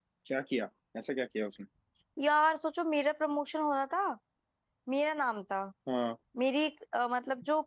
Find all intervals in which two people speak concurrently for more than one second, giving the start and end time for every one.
none

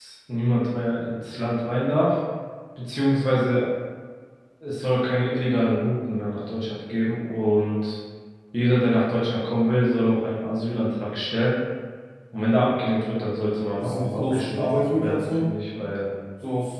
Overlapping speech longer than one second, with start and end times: 13.8-15.4

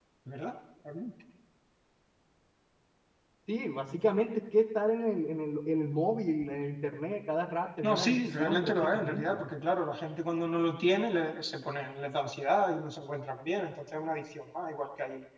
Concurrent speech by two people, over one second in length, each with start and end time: 7.8-9.4

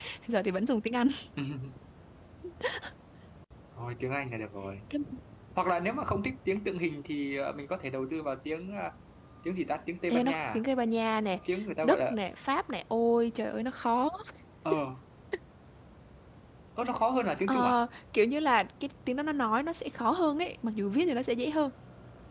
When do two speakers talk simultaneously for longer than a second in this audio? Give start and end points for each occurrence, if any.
none

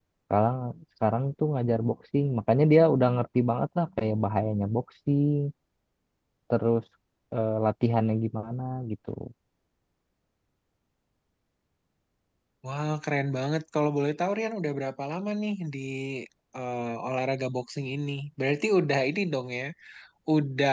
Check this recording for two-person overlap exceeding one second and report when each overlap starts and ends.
none

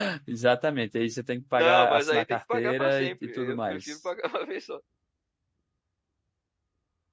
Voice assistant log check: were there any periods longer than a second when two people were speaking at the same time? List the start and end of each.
1.6-4.0

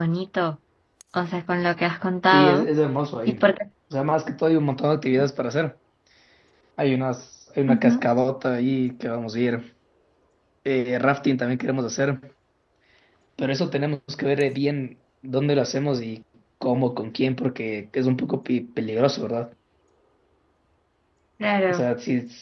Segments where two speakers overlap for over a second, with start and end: none

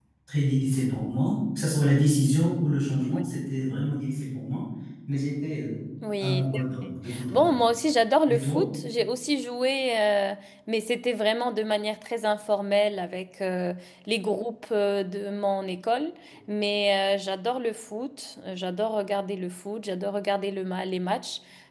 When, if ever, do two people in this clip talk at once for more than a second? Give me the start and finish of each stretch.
6.2-7.6

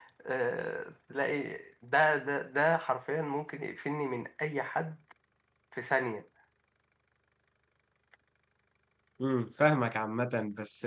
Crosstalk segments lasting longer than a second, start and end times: none

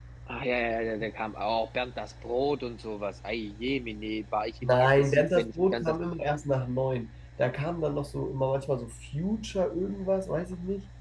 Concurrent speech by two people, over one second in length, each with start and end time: 4.6-5.8

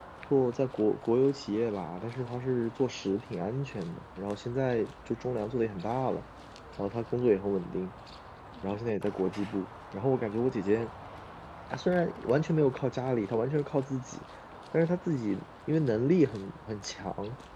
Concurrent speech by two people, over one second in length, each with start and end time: none

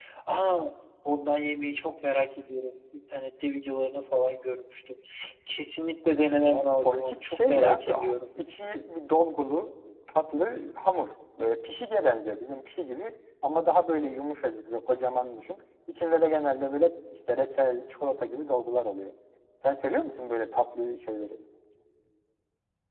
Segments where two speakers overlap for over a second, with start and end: 6.4-8.1

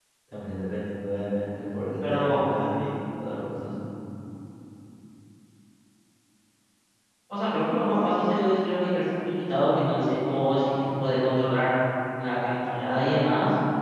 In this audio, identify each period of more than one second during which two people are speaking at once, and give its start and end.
none

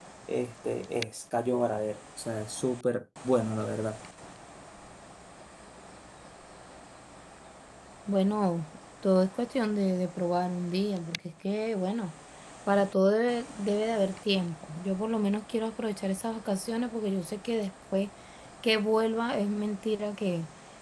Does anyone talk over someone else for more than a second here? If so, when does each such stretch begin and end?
none

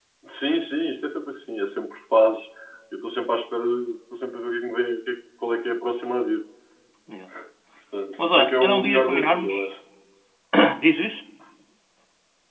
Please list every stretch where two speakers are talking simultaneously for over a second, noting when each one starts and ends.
8.2-9.6

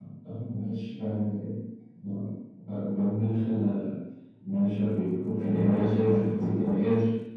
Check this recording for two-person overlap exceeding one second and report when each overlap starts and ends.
5.4-6.7

